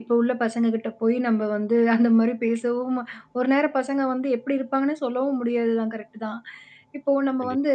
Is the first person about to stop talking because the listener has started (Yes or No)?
No